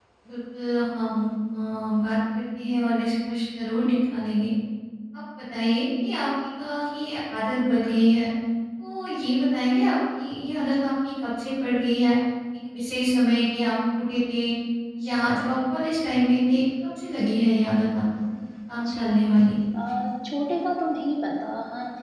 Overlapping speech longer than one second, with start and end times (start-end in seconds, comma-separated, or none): none